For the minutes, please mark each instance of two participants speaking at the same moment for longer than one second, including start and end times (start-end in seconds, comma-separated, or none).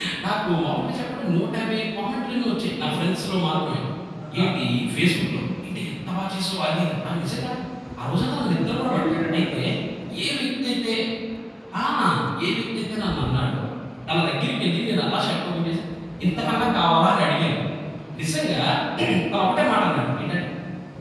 8.3-9.6